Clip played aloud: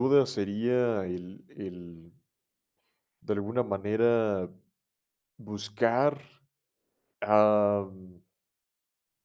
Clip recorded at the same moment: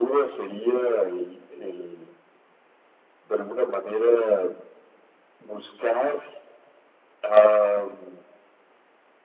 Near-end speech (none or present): none